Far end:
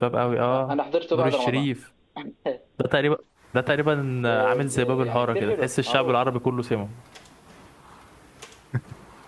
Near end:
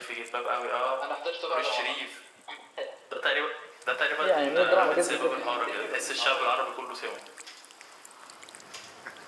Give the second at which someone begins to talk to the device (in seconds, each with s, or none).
4.3 s